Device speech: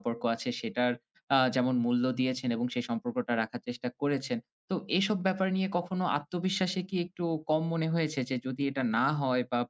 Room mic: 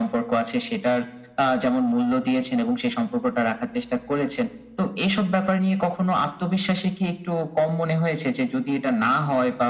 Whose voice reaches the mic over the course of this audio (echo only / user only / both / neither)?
echo only